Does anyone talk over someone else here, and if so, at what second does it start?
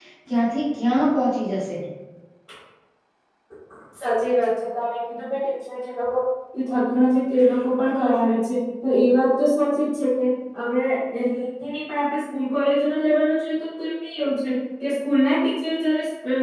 none

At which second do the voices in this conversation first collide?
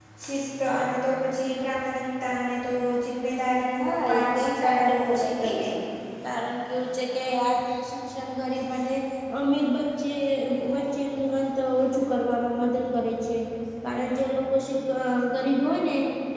4 s

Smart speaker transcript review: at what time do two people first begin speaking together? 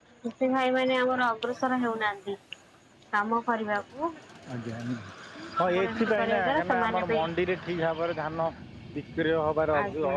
6 s

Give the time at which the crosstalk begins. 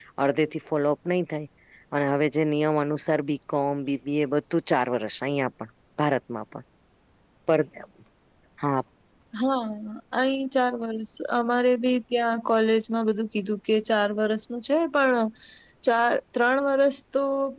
none

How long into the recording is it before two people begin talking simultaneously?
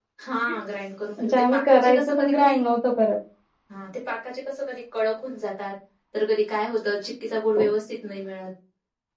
1 s

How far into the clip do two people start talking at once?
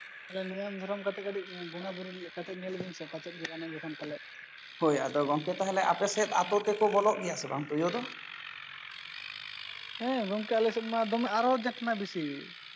none

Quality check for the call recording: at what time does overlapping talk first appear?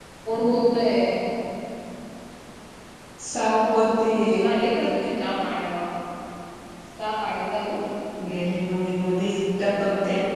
none

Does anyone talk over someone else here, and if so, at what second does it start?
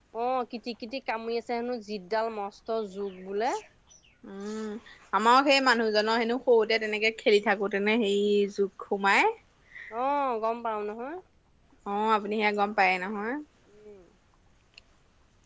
none

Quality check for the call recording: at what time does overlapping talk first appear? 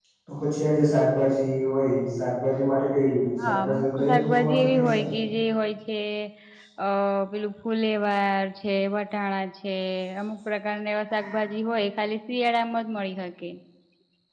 3 s

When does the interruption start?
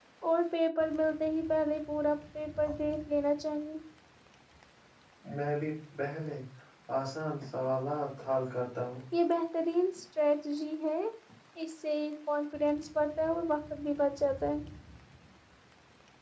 none

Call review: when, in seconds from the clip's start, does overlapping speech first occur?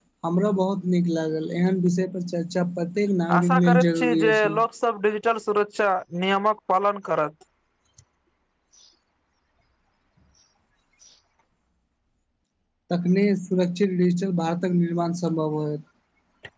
3 s

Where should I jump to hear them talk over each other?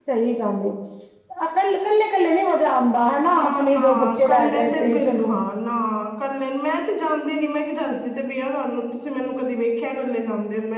3 s

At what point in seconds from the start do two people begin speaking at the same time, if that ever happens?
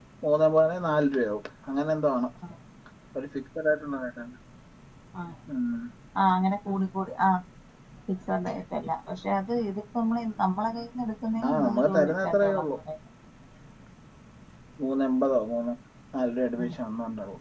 11 s

